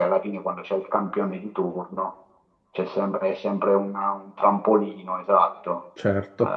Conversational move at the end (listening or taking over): listening